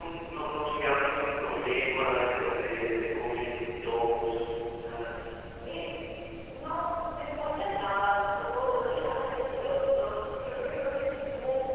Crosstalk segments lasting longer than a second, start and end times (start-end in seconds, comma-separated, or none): none